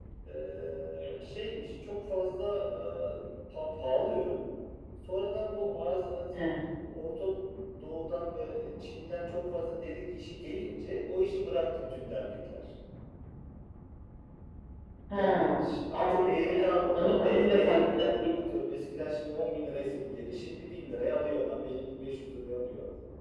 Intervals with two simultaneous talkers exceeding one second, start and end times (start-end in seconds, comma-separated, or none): 15.1-16.5, 16.9-18.3